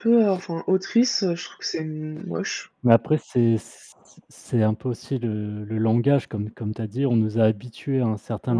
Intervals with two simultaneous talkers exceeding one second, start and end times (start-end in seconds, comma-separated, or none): none